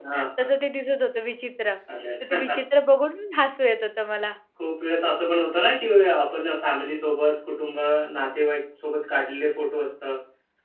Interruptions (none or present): none